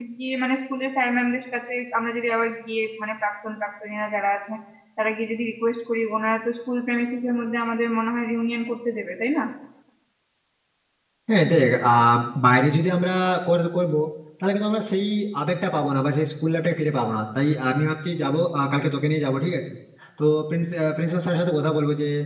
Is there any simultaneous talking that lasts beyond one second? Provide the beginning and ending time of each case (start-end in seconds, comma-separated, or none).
none